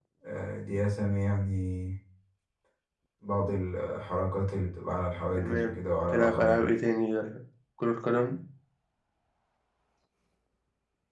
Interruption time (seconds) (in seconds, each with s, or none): 5.4 s